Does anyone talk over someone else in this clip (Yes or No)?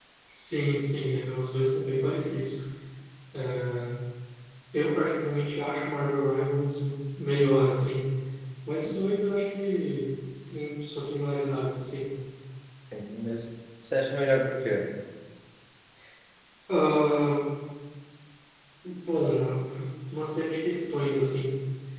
No